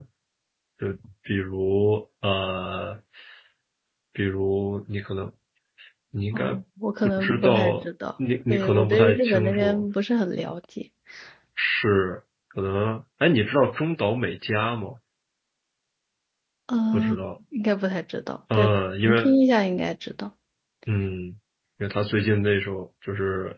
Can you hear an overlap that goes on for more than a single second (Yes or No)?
Yes